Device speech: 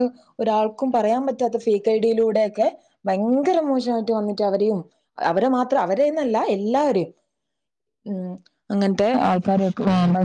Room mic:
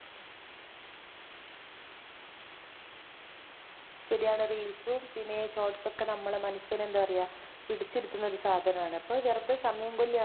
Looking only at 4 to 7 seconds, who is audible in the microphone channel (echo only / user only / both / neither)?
user only